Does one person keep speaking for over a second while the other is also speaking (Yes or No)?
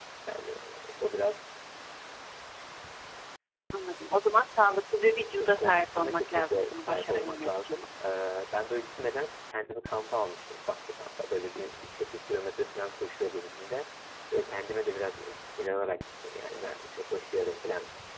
Yes